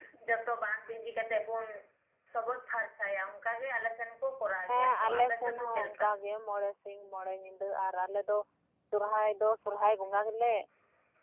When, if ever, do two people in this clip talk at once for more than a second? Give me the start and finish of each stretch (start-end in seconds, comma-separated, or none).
4.7-6.1